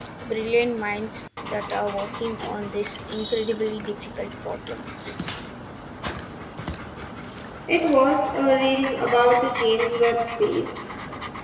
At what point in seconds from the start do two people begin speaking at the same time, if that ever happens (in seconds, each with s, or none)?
none